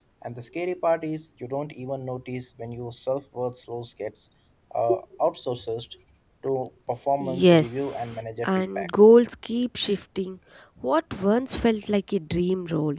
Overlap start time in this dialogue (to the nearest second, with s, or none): 7 s